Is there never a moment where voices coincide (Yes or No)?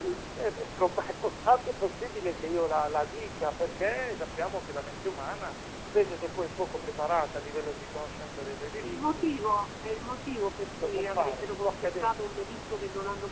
No